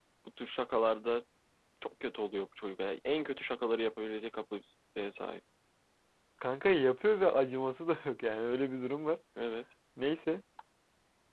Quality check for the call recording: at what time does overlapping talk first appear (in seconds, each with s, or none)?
none